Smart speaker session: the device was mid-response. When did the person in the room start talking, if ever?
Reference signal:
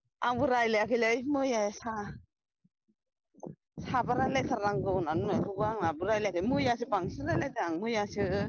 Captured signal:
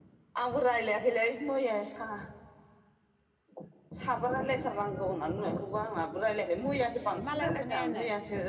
7.0 s

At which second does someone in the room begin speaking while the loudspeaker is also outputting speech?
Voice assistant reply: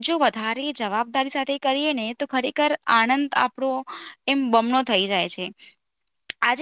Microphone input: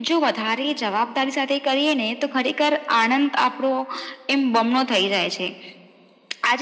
none

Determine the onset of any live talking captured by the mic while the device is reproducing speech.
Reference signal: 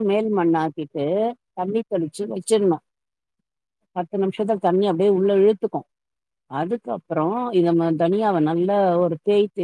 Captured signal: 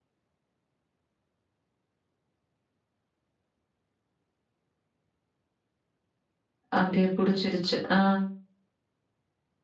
6.8 s

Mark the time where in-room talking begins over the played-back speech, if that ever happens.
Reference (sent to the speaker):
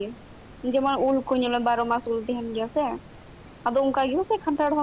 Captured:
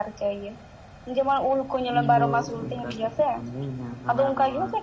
1.9 s

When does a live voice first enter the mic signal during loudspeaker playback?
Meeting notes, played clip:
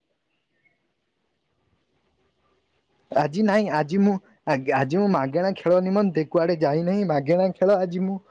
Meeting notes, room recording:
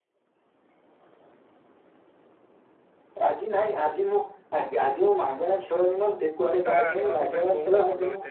6.7 s

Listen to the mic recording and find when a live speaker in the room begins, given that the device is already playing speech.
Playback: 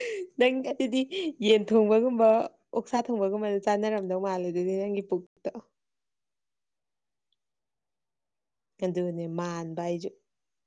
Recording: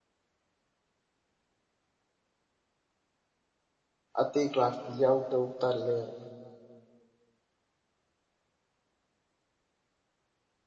4.2 s

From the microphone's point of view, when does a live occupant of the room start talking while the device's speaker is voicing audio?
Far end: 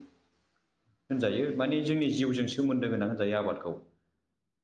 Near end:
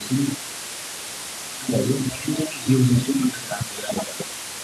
none

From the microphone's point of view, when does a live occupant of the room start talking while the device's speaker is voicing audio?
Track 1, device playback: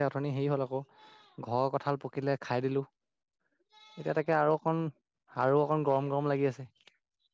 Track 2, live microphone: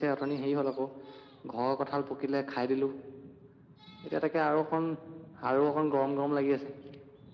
none

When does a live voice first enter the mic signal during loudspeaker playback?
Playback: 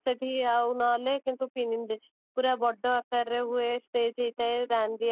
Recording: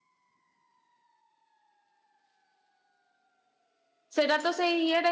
4.2 s

